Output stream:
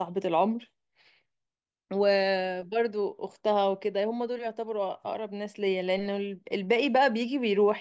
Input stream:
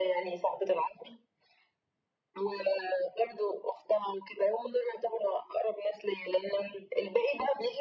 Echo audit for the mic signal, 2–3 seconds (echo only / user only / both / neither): echo only